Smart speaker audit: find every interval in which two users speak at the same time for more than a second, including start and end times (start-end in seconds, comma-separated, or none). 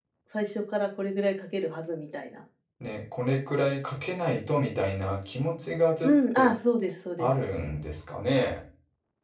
none